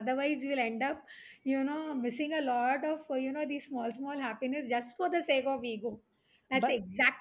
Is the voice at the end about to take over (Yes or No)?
No